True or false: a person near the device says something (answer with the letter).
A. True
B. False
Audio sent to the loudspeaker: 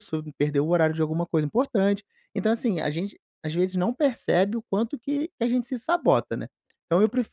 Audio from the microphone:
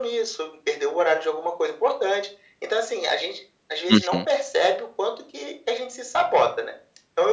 A